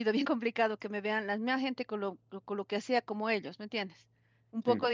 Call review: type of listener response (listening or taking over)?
listening